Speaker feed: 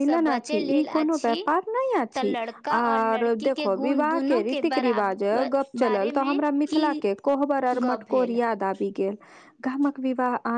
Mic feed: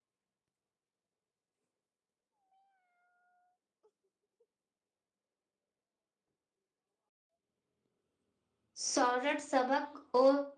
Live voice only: सौरठ सबक ओ

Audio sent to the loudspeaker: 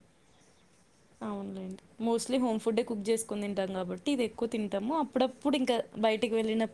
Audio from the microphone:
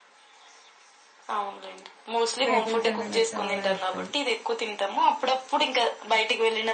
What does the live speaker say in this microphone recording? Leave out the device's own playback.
వెహికల్స్ అంటే నాకు చాలా ఇష్టం

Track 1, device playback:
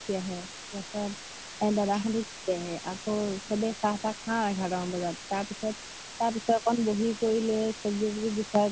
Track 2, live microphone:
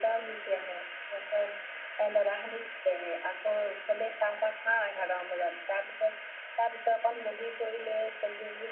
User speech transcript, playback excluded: none

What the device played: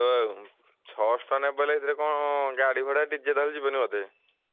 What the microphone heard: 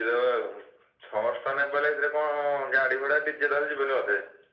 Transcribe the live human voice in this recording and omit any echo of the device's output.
none

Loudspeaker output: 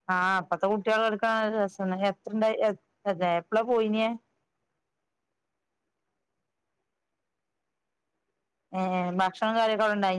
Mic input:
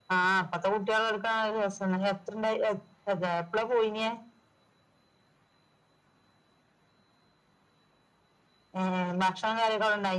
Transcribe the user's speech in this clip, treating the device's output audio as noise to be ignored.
none

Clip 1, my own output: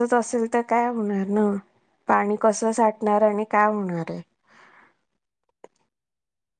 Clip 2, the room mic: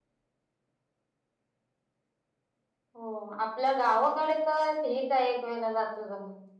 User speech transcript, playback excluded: हो आपल्या गावाकडे तर हे काय एक वेळेला जात जमून.

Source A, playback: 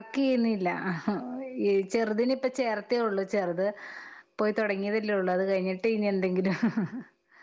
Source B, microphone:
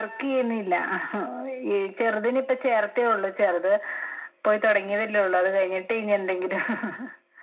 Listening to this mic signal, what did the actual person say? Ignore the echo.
none

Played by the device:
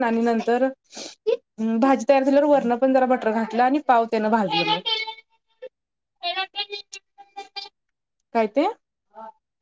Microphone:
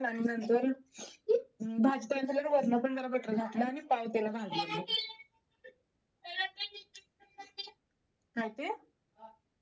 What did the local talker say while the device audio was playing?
none

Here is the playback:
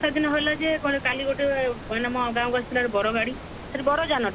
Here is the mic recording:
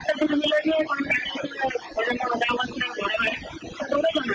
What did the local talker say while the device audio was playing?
none

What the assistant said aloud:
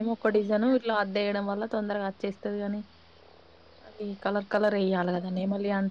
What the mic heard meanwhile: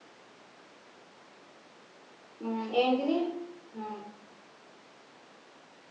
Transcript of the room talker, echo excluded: ఉహ్ ఏంటిది ఊ

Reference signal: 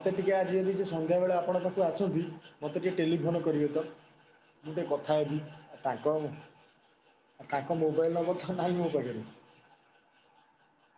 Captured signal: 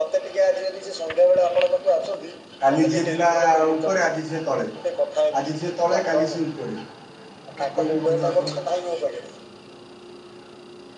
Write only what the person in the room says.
କାଲି ଯିଏ ଥିଲା ଆଉ ଉପରେ ଆଜି ସିଏ ତଳେ। ଆଜି ଯିଏ ତଳେ କାଲି ସିଏ ଉପରେ। କଣ କହିବି ବନ୍ଧୁ ଆପଣଙ୍କୁ।

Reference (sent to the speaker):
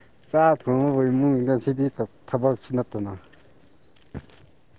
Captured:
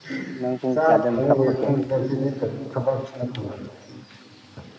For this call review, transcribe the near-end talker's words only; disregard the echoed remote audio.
ꯅꯪ ꯄꯨꯡ ꯀꯌꯥꯗ ꯃꯦꯀꯞ ꯊꯣꯛꯀꯦ

